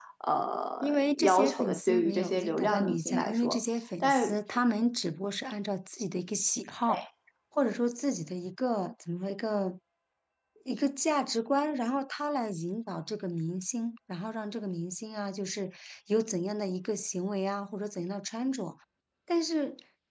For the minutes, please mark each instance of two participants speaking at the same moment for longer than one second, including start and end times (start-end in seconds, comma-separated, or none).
0.8-3.6